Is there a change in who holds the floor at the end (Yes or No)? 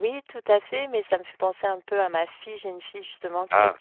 No